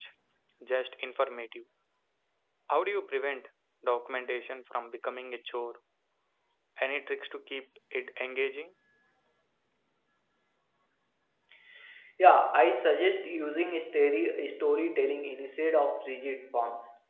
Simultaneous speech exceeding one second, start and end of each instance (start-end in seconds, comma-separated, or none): none